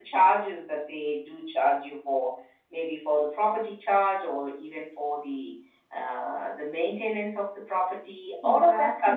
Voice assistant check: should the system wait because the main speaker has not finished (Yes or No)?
No